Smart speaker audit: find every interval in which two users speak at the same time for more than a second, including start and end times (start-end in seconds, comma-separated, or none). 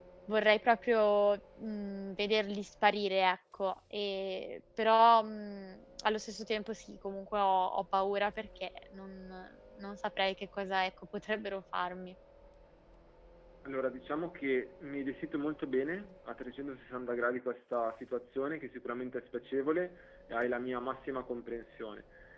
none